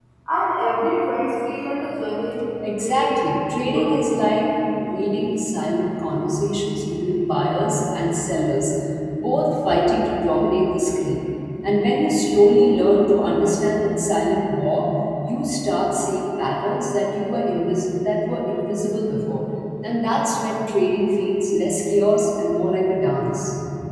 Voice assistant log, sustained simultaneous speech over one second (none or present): present